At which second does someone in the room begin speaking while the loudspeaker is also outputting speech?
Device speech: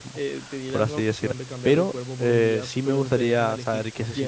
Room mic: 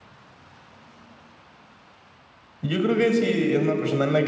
3 s

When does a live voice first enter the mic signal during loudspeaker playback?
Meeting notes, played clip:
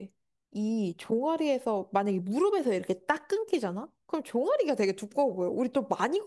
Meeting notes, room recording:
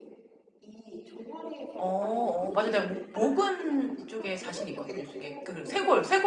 2 s

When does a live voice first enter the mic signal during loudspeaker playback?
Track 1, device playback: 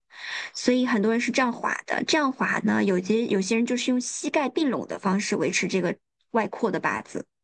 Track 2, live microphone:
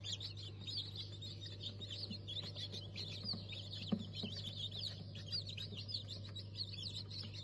none

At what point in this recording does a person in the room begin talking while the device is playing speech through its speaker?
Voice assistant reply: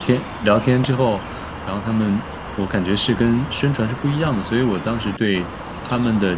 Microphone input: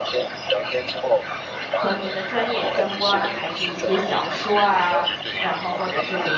2 s

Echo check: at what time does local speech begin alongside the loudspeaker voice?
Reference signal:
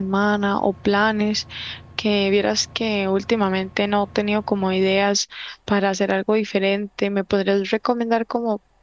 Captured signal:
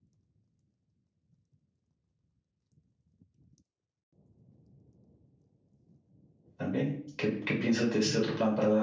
7 s

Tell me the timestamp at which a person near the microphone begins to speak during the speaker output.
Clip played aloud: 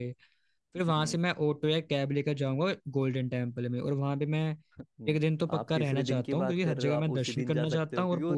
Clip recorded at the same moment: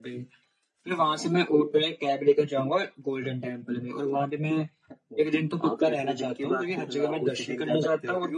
none

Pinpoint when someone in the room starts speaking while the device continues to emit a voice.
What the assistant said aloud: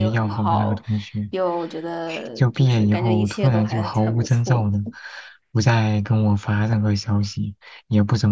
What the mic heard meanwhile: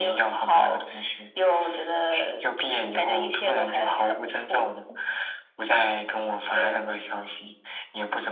7 s

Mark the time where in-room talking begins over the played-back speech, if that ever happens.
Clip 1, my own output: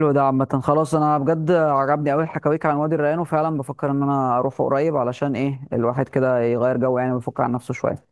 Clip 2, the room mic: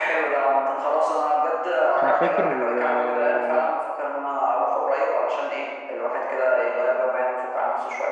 2 s

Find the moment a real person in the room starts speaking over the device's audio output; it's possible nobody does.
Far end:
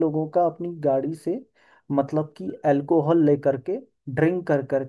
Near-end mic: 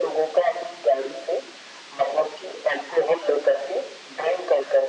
none

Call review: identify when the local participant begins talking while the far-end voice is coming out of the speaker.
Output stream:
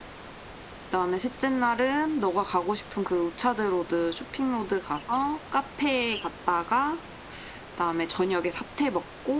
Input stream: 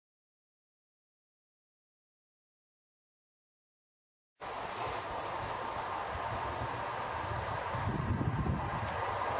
none

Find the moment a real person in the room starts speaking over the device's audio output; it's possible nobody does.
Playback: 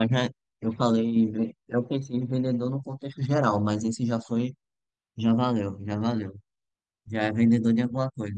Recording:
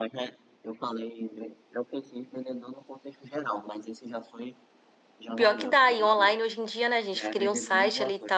5 s

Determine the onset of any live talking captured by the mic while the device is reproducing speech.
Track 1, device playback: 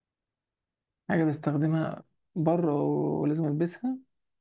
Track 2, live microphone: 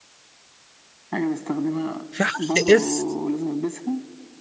2 s

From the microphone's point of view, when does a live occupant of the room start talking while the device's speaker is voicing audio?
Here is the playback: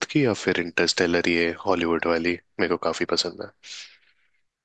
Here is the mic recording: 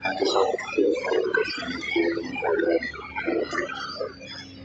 none

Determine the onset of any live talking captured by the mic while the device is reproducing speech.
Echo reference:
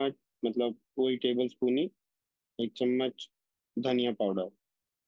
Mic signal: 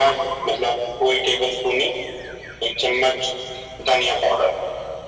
none

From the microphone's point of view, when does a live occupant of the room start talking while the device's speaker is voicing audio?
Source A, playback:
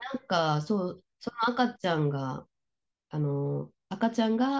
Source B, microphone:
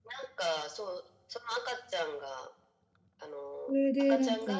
4 s

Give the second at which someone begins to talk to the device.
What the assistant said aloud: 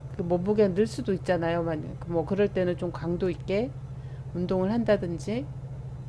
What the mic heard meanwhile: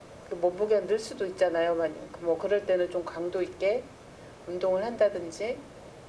none

